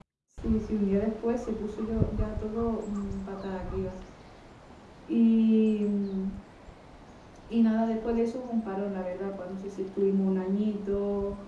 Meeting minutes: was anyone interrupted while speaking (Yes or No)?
No